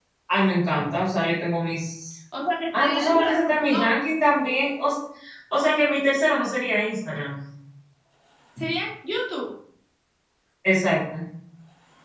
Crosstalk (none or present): present